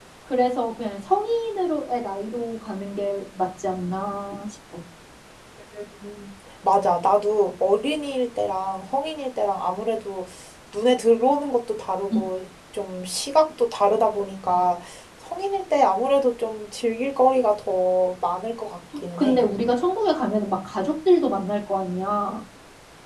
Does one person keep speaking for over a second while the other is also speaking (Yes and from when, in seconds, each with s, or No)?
No